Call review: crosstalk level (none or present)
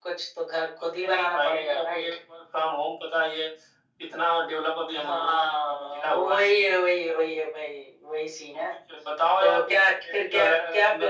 present